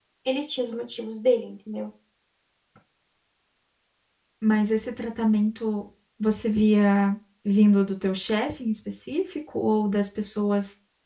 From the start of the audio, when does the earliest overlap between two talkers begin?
none

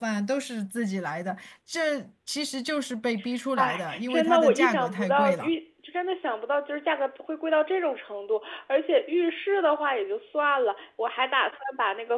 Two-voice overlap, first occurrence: 3.6 s

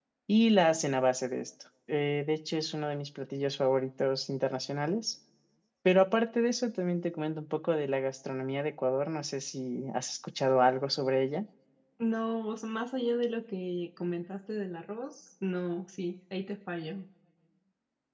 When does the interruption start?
none

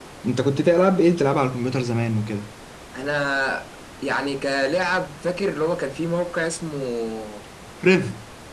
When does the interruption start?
none

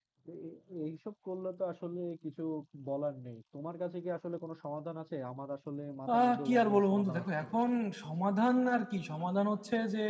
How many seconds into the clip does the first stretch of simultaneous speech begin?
6.1 s

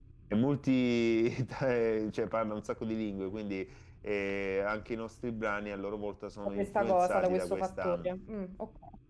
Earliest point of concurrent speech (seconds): 6.5 s

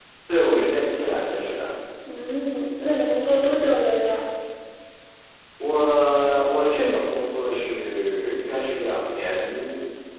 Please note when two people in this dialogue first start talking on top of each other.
none

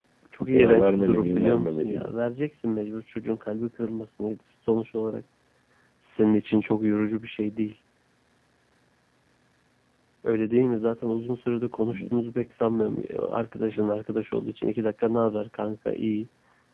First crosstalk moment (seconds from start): 0.5 s

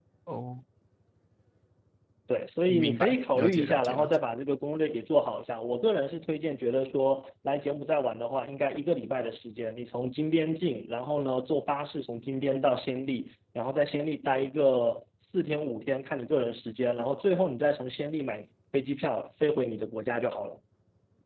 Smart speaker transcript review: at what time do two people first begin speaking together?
2.7 s

